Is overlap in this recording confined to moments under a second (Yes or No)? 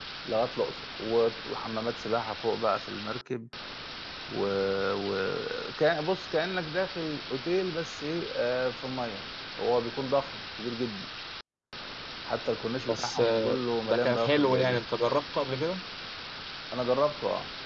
No